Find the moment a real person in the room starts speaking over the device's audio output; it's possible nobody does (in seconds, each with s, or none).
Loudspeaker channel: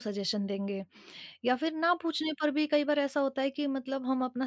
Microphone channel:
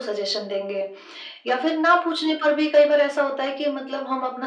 none